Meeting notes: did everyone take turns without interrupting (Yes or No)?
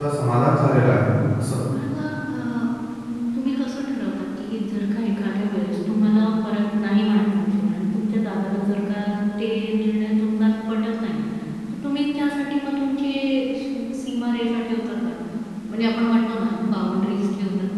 Yes